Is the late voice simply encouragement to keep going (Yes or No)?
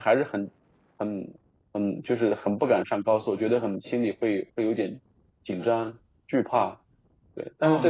No